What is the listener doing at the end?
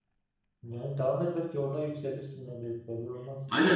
taking over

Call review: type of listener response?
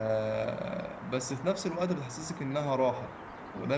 listening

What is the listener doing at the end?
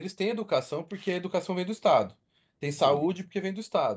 listening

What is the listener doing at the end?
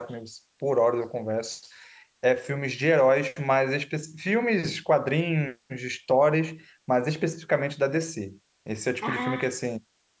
listening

